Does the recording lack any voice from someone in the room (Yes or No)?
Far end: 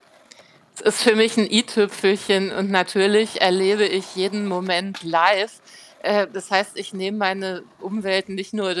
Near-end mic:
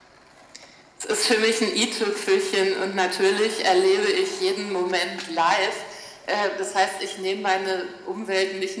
Yes